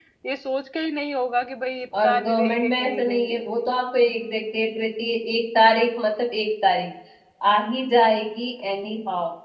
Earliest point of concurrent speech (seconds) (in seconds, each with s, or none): 1.9 s